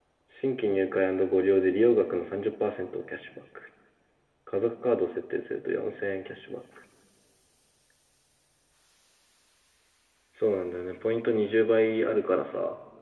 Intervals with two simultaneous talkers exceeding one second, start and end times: none

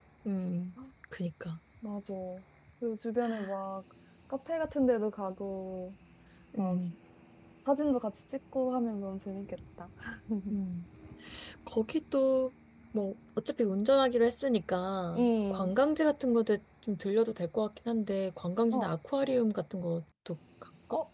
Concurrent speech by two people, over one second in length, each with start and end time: none

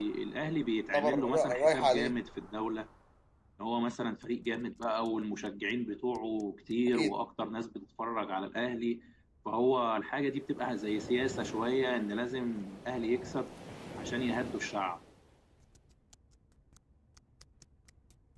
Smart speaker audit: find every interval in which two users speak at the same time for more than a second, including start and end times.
0.9-2.2

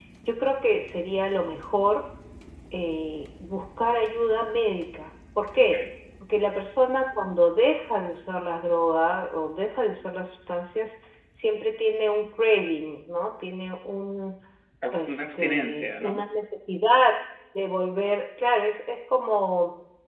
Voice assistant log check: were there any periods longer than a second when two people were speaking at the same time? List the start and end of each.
14.9-16.2

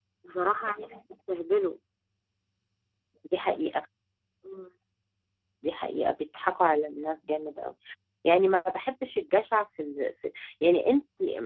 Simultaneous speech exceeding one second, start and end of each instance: none

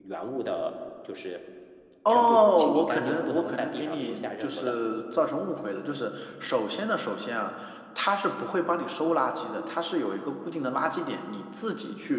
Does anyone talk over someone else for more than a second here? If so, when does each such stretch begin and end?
2.1-4.8

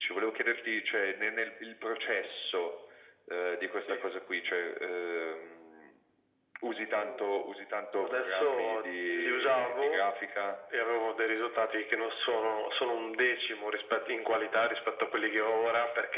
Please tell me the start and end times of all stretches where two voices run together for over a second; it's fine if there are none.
8.0-10.0

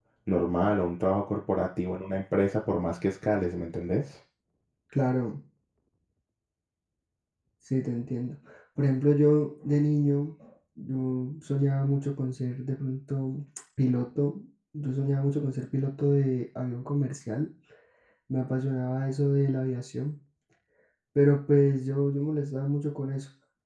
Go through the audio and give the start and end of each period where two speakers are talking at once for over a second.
none

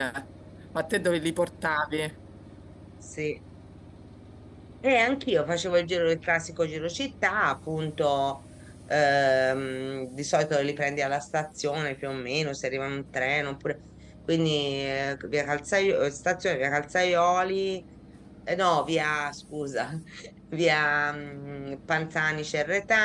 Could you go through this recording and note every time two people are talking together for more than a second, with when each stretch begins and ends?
none

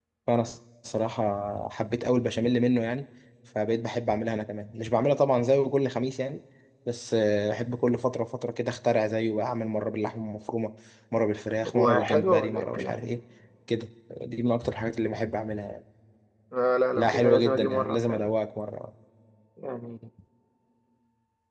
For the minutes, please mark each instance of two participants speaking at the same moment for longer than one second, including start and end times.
11.7-13.0, 17.0-18.3

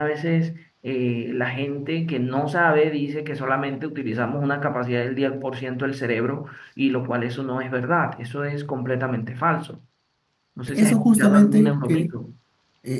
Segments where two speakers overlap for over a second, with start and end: 10.7-12.1

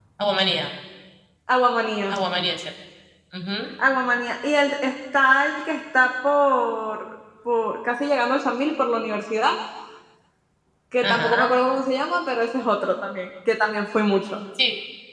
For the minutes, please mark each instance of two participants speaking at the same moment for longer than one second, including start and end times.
none

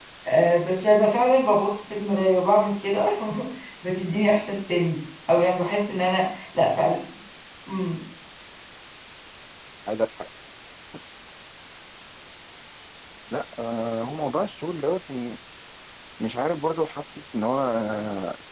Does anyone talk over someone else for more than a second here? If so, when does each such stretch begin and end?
none

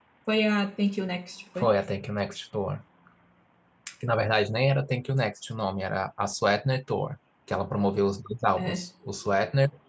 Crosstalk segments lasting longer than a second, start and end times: none

